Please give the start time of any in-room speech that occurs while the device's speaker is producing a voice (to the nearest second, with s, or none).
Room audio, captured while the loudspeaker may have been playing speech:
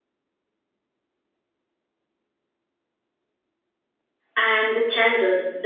4 s